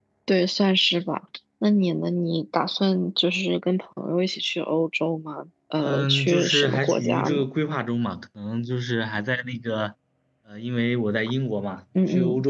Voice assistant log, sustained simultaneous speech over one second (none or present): present